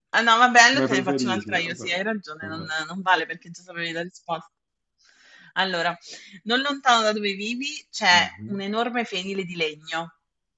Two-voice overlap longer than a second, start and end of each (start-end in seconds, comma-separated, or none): 0.7-2.0